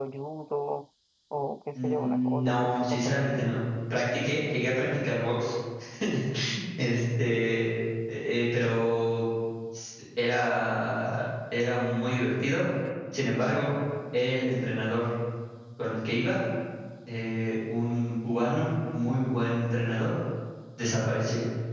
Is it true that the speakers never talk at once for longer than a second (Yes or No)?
No